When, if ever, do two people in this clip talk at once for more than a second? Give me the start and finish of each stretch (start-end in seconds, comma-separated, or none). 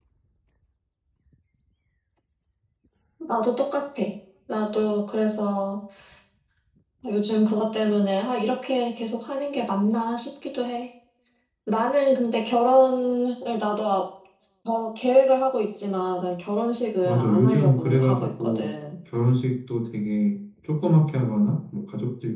17.0-18.7